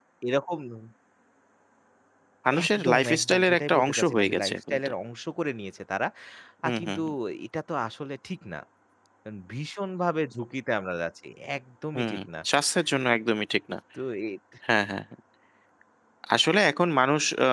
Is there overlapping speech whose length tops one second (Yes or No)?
Yes